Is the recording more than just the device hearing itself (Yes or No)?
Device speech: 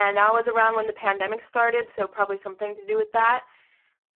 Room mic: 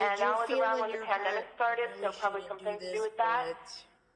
Yes